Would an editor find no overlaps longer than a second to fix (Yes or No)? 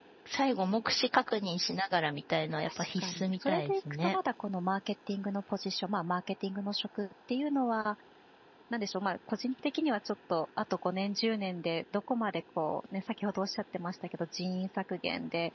No